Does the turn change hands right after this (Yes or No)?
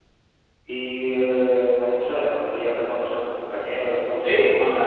Yes